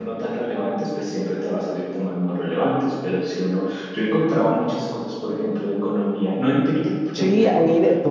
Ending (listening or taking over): taking over